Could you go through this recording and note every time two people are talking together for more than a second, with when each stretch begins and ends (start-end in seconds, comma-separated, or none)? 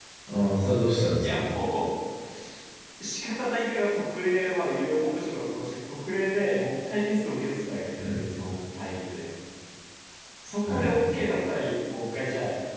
none